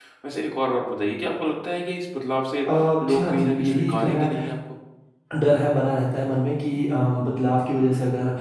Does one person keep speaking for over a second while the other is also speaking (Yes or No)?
Yes